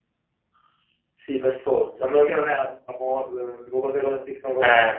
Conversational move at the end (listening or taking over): taking over